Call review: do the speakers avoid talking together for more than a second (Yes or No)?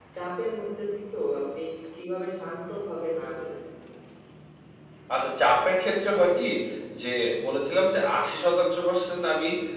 Yes